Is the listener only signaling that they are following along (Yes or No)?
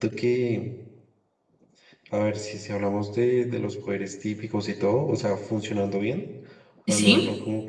Yes